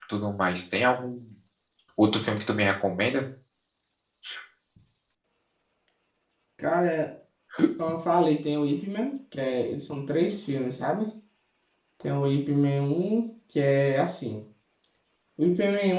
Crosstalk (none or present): none